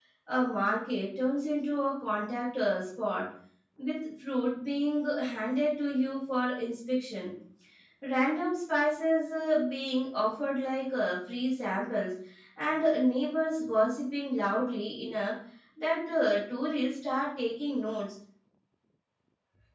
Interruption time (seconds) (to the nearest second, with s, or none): none